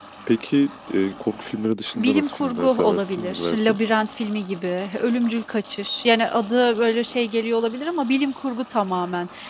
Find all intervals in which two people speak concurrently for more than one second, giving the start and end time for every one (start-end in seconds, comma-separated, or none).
1.9-3.8